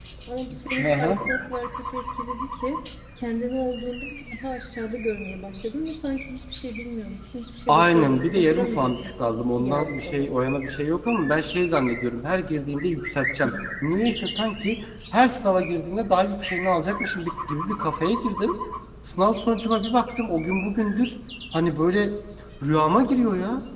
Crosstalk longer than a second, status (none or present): present